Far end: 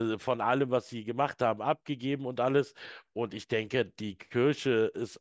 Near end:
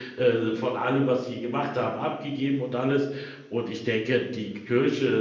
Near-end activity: none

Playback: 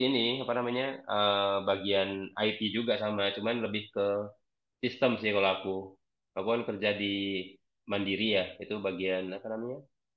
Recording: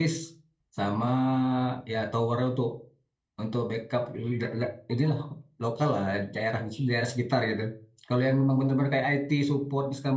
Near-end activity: present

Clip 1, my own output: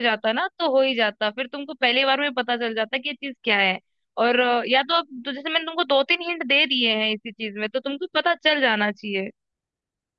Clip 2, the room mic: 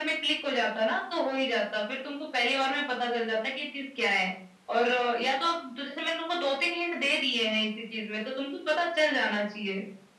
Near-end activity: none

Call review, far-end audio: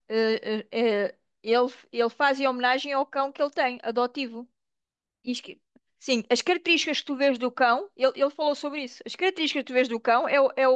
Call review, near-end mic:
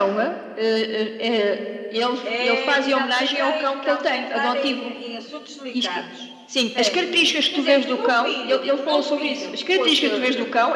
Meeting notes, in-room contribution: present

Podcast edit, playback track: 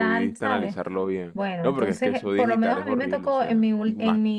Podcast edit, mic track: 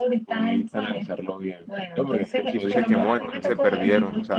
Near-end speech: present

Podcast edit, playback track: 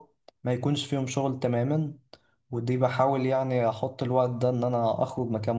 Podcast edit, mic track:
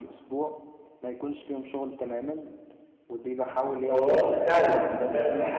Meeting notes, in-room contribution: present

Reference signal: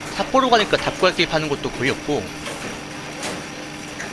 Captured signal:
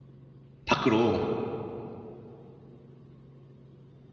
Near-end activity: present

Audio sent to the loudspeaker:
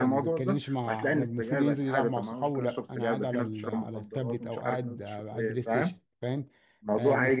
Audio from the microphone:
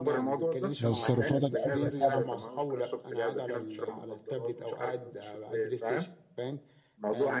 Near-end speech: present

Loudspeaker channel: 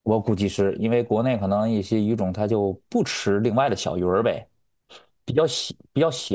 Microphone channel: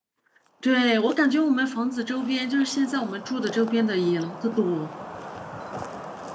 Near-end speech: present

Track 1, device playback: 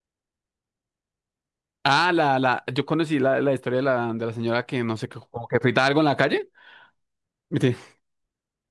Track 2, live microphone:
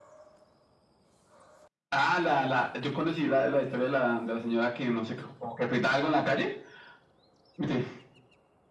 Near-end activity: none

